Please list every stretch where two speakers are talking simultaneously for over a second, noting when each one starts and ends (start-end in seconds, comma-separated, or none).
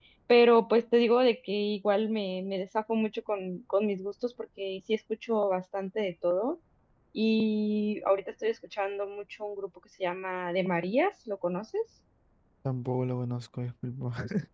none